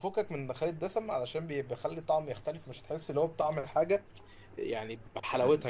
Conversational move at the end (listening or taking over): listening